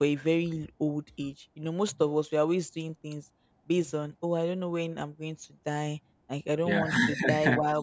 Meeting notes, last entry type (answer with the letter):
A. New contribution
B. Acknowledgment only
B